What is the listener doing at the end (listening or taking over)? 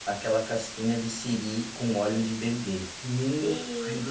listening